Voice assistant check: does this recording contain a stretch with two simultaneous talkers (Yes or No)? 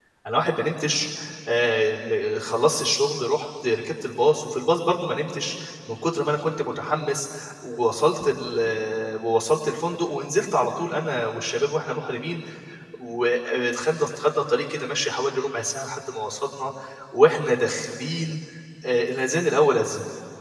No